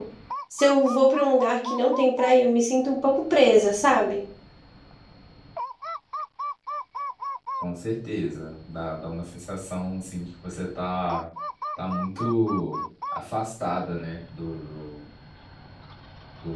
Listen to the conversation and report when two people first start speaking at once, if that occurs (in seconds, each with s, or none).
none